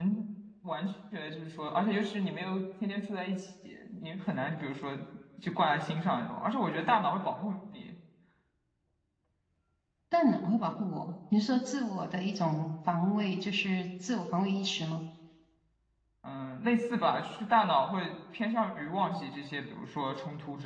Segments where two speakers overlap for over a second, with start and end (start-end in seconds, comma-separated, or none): none